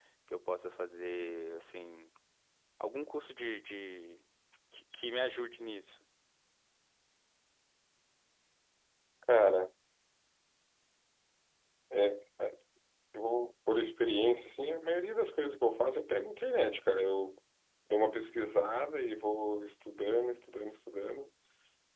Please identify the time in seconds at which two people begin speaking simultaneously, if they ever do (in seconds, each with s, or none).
none